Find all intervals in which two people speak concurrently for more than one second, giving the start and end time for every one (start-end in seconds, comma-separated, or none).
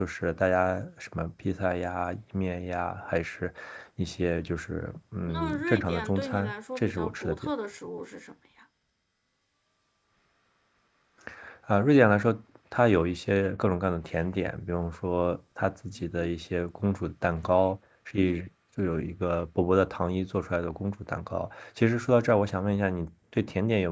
5.3-7.5